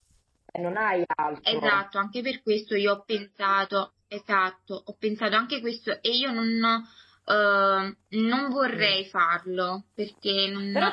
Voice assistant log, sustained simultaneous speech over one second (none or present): none